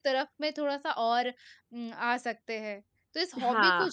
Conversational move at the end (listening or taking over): listening